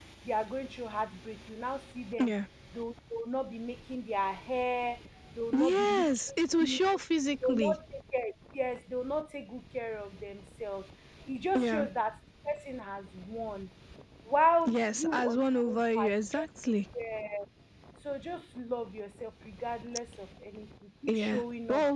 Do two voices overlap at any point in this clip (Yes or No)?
Yes